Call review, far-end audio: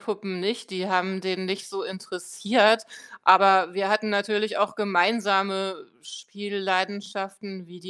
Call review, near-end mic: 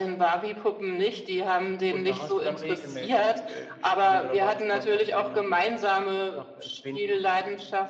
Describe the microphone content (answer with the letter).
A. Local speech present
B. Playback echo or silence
A